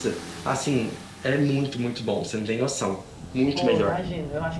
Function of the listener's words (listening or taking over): taking over